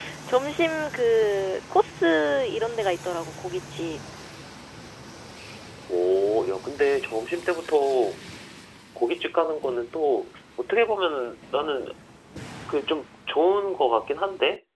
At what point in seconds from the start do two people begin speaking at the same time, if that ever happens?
none

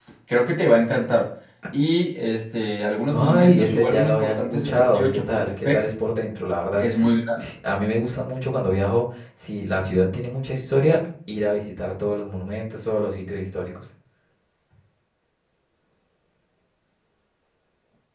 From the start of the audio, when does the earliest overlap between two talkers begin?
3.1 s

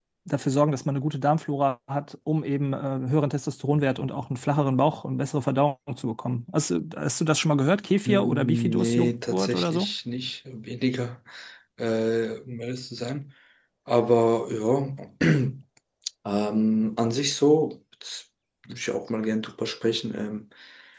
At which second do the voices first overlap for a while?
8.1 s

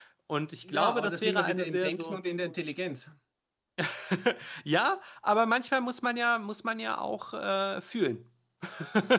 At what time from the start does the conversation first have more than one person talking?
0.6 s

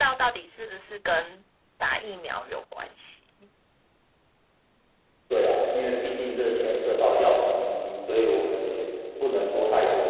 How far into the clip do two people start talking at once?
none

